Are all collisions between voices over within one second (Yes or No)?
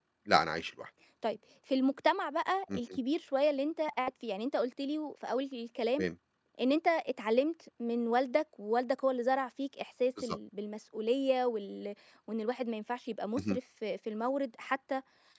Yes